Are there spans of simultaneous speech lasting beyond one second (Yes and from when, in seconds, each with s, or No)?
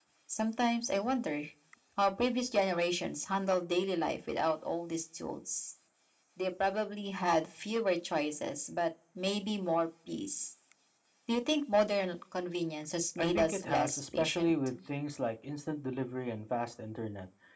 Yes, from 13.2 s